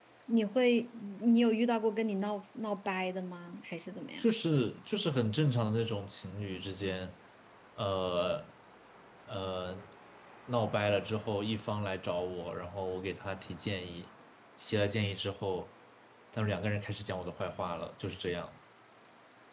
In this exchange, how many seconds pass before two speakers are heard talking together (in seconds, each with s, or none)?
none